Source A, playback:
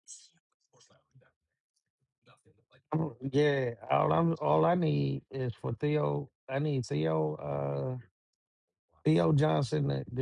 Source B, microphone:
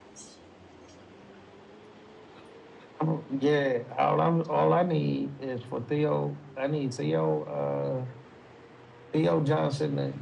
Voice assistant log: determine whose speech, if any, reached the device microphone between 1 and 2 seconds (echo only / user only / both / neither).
neither